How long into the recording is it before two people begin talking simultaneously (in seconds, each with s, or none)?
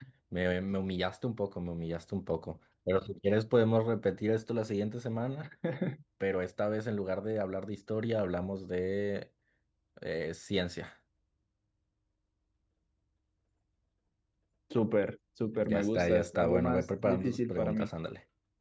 15.6 s